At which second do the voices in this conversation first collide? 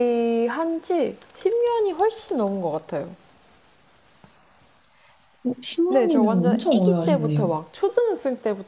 5.9 s

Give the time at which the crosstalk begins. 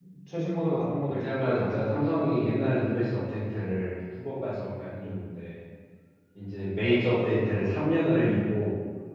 0.6 s

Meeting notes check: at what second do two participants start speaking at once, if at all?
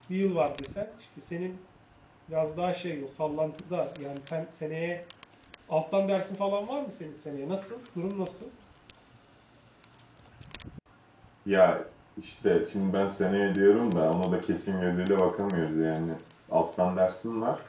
none

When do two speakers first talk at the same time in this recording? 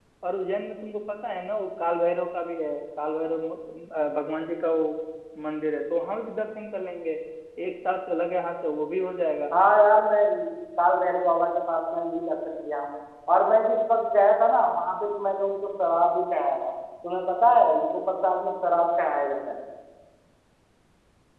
none

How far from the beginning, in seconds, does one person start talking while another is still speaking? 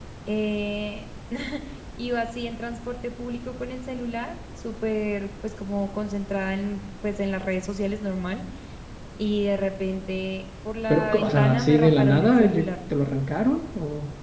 10.9 s

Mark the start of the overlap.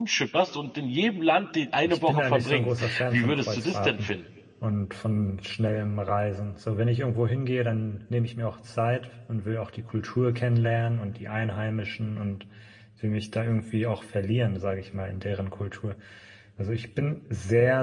1.9 s

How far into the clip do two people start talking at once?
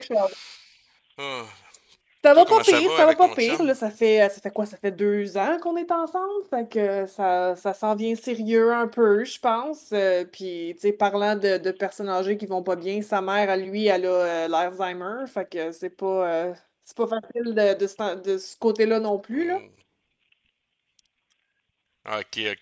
2.3 s

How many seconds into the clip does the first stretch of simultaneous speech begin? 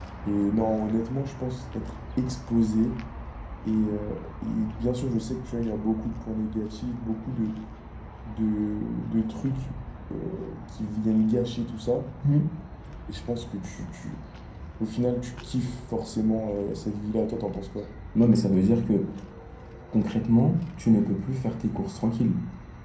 none

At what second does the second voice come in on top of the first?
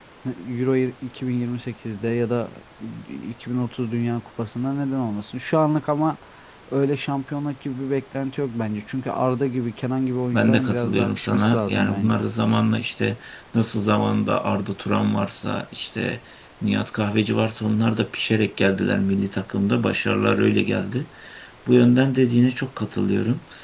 10.3 s

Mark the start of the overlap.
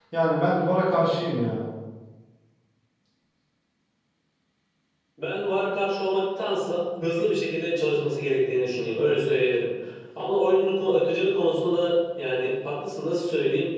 none

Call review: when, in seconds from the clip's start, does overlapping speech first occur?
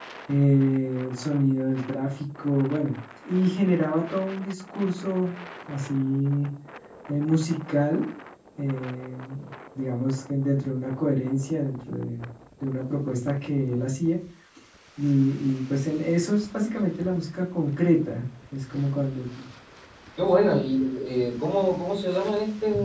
none

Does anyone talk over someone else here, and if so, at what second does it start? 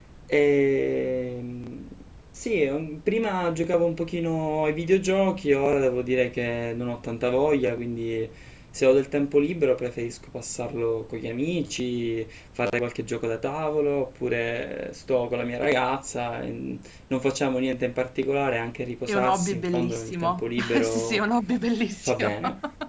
19.1 s

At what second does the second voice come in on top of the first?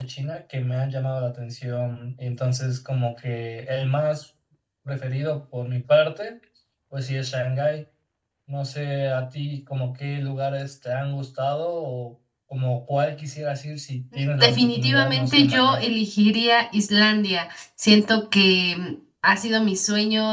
14.4 s

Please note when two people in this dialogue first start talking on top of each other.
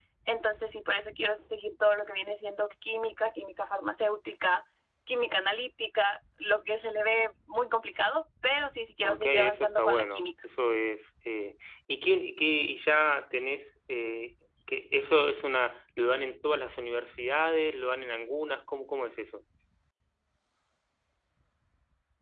9.0 s

